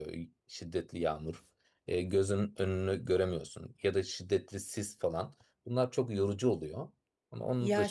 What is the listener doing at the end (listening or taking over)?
taking over